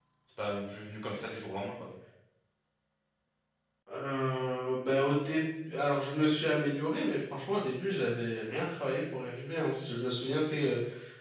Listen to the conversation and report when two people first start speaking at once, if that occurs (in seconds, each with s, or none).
none